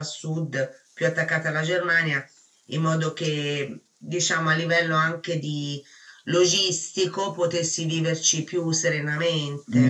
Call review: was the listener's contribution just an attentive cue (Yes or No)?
No